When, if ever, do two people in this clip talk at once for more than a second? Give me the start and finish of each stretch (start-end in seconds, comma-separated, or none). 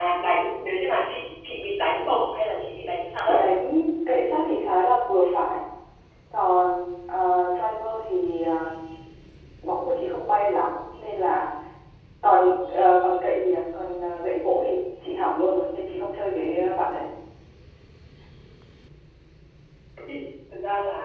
none